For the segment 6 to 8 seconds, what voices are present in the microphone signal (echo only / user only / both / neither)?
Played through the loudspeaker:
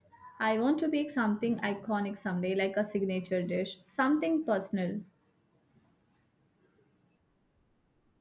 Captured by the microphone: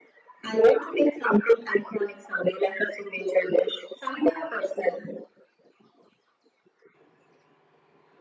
neither